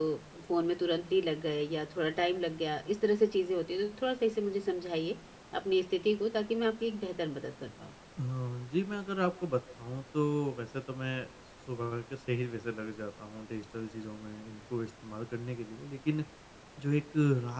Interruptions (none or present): none